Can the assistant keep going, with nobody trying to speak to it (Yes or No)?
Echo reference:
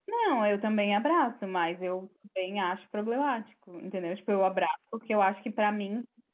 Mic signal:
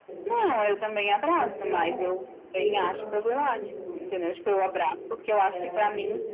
No